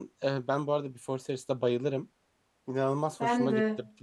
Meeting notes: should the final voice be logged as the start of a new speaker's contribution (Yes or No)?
No